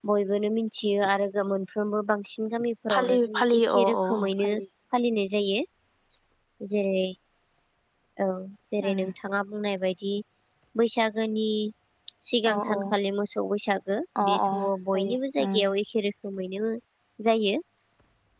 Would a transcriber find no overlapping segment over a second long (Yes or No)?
No